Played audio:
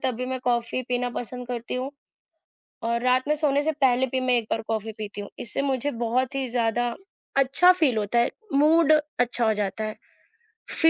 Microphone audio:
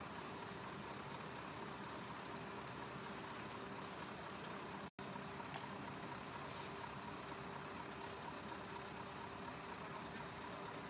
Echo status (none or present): none